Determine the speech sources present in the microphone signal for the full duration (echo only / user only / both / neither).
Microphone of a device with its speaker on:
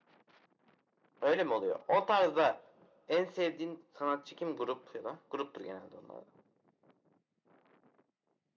echo only